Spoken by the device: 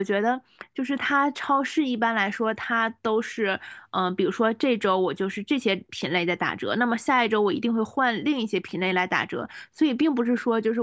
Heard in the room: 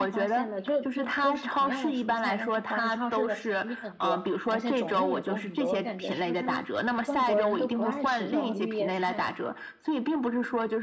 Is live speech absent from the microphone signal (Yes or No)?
No